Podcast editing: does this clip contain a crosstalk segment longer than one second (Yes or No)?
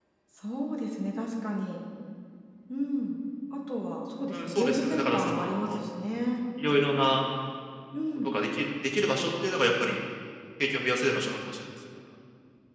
Yes